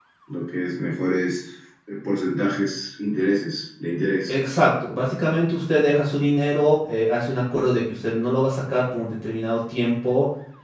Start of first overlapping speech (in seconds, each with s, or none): none